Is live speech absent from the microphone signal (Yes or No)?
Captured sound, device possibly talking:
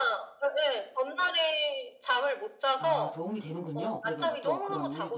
No